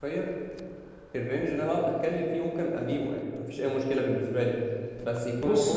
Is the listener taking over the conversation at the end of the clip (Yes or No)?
Yes